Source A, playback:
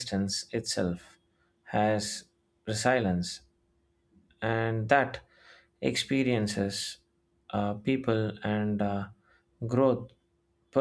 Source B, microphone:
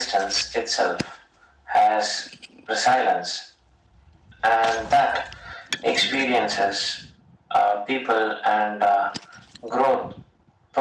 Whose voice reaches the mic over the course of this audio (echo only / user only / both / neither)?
echo only